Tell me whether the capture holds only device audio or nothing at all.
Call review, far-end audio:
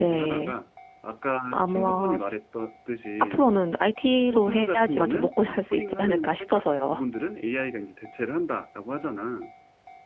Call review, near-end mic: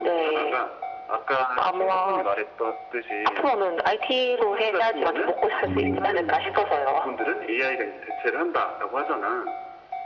No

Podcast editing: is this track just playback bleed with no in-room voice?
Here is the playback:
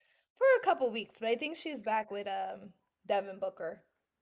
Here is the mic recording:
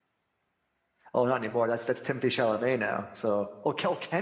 No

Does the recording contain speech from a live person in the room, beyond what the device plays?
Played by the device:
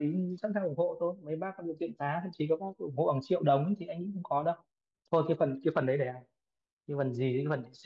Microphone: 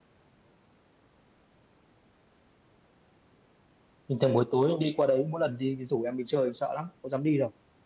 Yes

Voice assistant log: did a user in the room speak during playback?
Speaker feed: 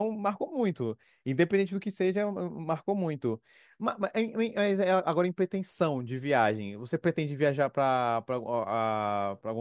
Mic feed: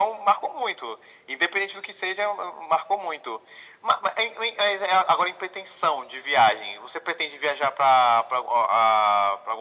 No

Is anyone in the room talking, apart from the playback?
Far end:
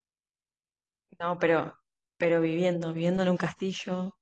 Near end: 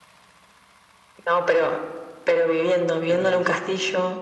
Yes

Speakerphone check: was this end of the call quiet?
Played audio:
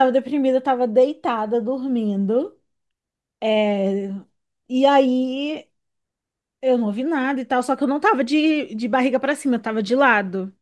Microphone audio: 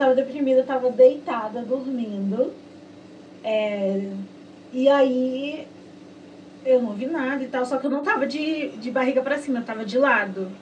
Yes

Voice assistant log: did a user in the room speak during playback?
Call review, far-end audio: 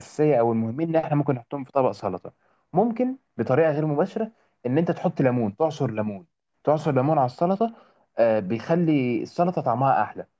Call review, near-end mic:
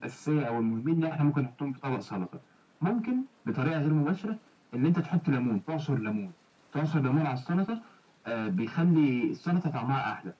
No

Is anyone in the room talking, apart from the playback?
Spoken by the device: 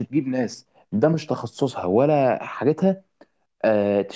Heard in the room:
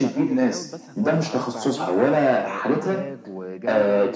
Yes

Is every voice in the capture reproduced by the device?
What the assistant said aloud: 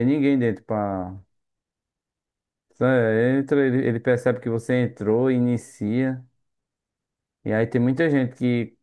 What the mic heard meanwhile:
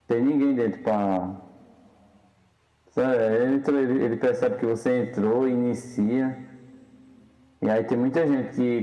Yes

